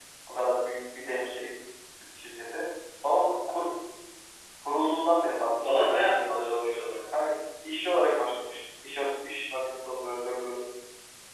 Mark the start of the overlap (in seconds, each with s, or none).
5.6 s